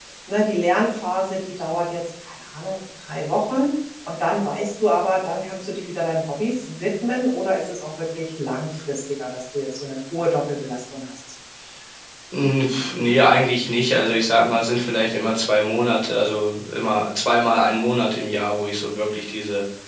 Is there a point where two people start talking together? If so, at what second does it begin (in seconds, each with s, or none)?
none